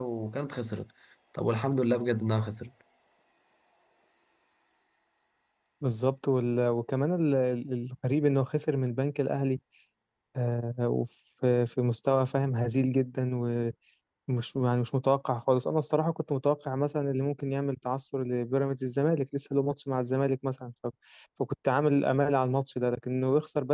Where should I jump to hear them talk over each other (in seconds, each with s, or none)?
none